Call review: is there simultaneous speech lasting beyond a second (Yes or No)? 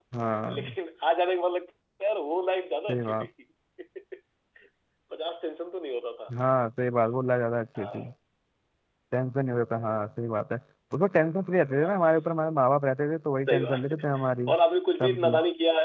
No